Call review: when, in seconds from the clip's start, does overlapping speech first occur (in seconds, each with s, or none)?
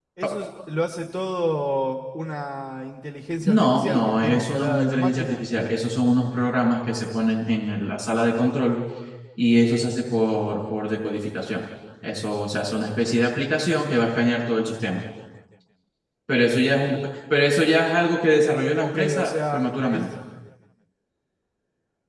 3.5 s